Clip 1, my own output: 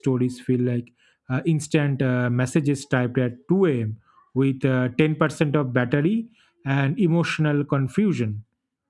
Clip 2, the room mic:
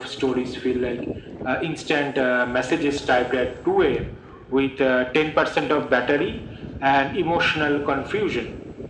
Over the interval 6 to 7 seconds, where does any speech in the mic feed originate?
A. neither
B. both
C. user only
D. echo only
D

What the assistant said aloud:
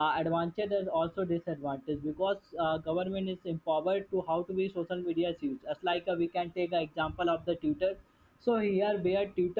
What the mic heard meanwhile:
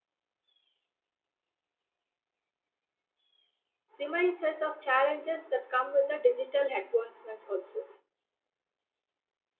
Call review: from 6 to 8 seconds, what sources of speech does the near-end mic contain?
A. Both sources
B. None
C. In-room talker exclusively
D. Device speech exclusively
C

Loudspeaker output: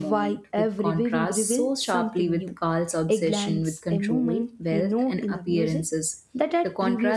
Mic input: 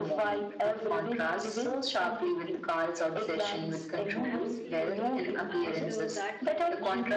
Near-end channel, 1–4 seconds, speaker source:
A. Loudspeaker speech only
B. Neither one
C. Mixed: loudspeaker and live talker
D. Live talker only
A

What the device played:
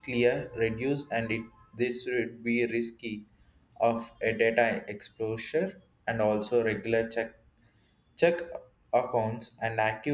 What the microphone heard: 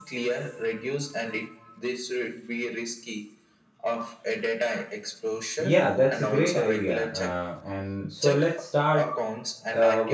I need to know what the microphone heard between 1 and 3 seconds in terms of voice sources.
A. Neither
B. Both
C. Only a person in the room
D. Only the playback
D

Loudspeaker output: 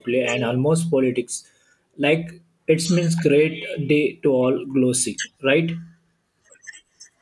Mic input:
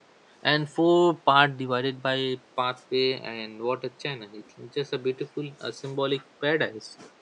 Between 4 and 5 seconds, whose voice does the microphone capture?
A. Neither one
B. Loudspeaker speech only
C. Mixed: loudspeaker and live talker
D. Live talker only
D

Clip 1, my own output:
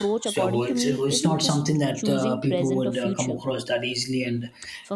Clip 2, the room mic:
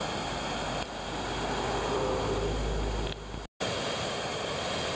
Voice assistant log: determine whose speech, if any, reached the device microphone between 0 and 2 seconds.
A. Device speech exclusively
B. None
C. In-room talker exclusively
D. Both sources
B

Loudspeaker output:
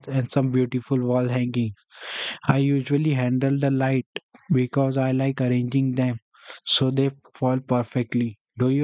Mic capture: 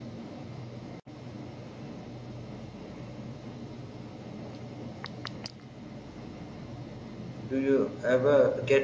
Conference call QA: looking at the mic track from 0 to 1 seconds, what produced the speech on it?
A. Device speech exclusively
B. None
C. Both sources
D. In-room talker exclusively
B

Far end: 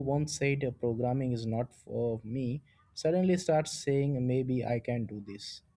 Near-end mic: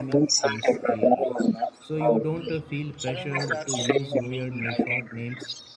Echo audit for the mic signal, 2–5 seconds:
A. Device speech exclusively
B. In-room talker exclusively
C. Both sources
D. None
C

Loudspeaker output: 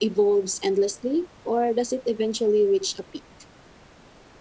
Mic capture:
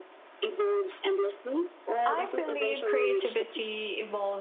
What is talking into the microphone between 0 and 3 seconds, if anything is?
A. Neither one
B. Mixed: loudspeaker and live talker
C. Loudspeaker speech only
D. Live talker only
B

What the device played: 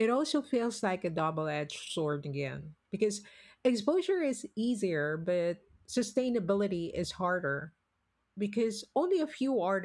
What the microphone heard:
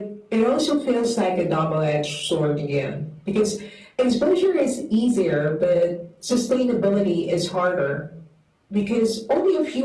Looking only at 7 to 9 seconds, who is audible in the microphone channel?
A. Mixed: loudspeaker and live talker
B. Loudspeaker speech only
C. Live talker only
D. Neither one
B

